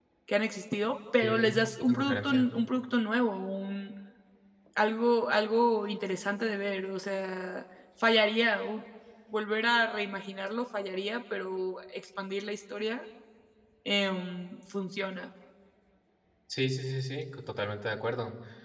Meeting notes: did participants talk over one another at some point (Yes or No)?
Yes